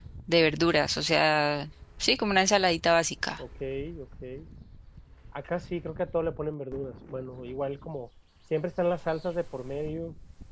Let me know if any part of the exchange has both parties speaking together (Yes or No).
No